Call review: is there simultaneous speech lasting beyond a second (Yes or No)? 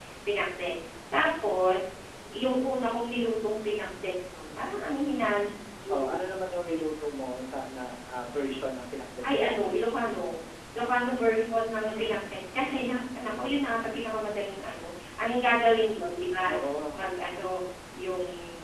No